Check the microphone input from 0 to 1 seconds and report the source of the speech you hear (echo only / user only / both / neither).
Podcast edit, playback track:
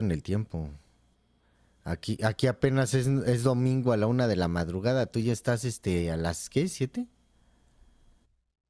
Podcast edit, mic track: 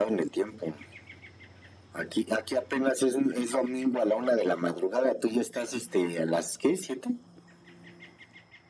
echo only